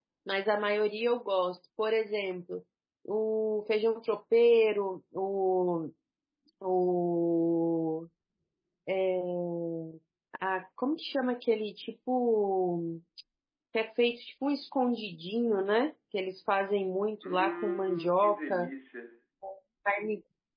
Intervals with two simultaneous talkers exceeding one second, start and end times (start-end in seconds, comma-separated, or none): 17.2-18.7